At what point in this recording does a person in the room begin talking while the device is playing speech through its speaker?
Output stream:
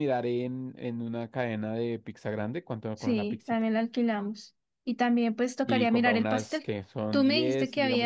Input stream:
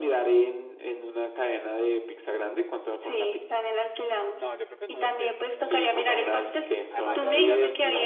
4.3 s

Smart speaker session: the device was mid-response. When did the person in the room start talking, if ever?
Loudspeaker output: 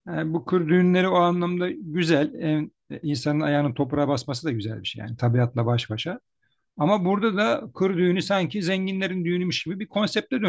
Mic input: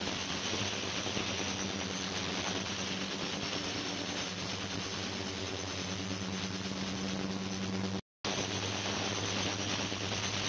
none

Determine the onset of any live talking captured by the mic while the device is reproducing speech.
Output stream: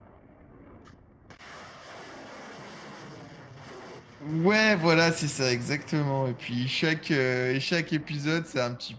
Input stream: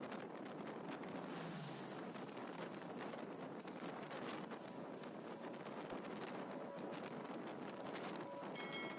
none

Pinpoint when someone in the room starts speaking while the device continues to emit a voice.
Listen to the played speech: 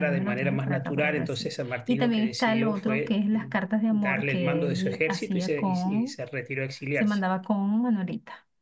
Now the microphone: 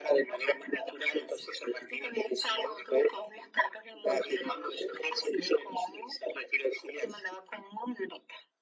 none

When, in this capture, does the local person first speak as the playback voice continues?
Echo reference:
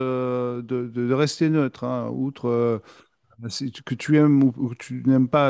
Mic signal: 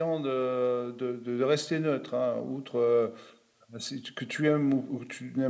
none

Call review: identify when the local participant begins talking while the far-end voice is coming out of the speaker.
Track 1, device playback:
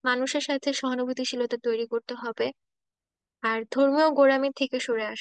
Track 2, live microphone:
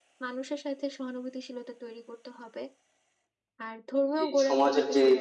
4.2 s

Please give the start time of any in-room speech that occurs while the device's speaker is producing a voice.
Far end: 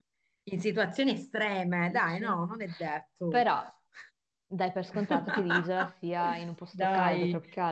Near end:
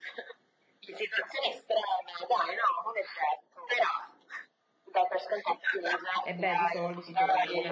6.2 s

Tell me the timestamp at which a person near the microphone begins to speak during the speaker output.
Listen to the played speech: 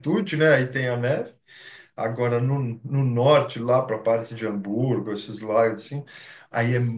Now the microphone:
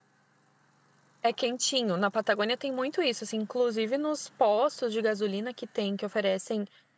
1.2 s

